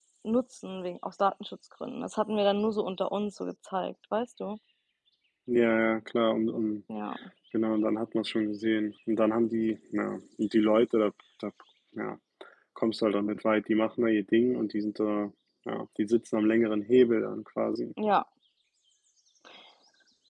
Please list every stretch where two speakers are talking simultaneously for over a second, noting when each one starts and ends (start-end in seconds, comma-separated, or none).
none